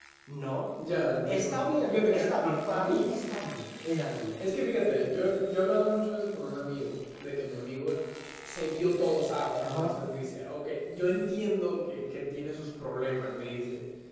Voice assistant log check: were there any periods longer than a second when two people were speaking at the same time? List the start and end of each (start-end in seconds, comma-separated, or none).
1.3-3.1